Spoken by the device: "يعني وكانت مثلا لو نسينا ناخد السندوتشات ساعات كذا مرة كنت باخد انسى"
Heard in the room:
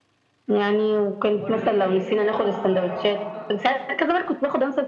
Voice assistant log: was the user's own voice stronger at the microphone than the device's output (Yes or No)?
No